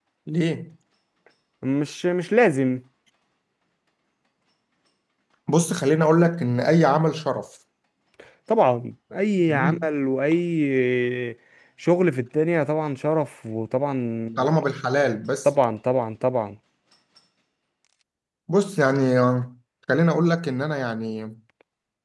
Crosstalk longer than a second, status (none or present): none